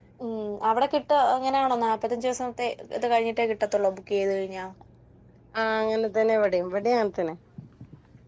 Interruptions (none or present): none